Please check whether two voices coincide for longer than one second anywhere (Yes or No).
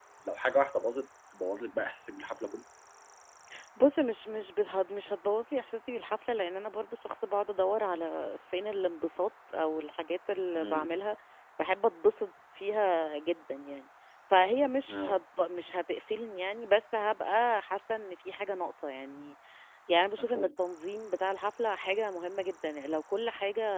No